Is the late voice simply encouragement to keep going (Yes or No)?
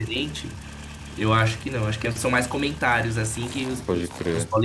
Yes